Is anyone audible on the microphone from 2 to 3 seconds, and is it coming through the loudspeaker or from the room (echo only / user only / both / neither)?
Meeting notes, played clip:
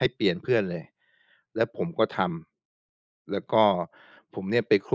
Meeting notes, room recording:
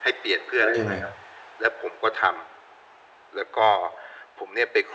echo only